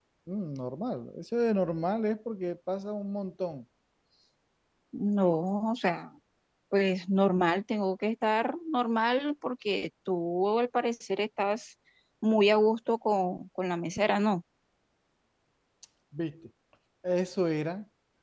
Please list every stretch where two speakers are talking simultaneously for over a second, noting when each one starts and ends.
none

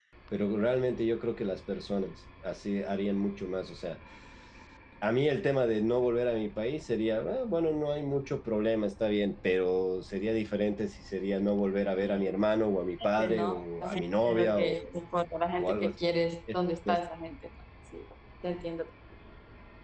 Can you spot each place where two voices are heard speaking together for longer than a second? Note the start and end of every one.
13.2-14.7

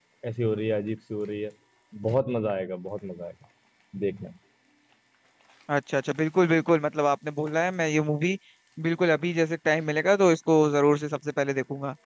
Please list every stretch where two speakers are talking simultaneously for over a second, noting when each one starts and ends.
none

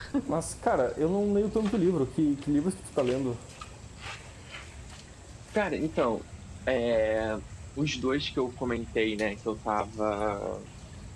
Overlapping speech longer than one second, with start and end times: none

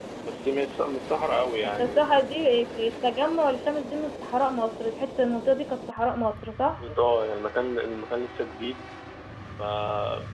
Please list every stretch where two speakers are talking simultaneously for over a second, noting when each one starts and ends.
none

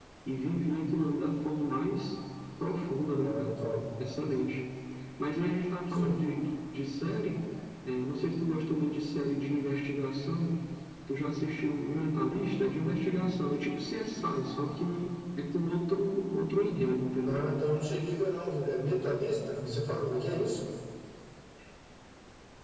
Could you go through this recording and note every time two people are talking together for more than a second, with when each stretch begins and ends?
none

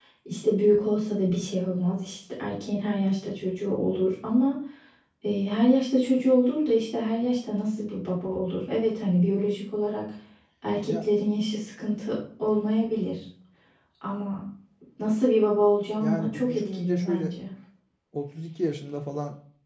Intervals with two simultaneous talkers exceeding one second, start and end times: 16.0-17.3

